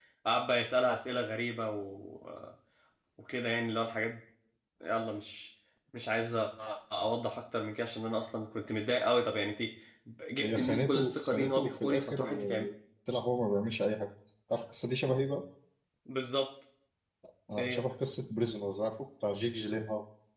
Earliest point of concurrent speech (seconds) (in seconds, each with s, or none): 10.4 s